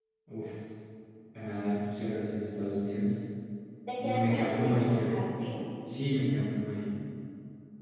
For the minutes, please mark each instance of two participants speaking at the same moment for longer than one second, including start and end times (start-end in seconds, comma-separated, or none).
4.0-5.2